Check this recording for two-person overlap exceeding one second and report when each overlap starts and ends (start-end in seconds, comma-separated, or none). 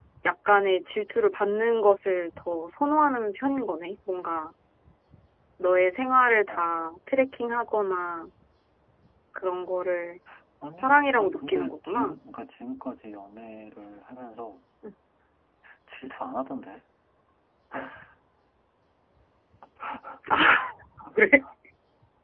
10.8-12.2